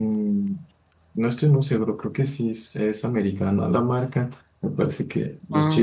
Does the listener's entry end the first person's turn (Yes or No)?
No